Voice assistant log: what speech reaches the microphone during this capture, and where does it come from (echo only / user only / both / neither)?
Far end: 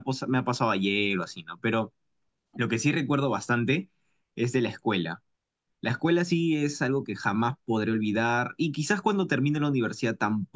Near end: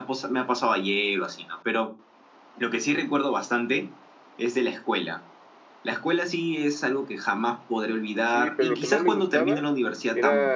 both